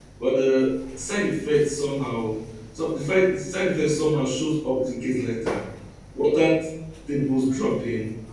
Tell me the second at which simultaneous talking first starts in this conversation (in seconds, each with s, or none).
none